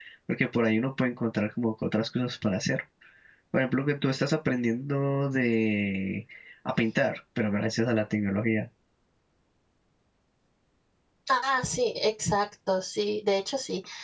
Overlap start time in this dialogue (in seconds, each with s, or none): none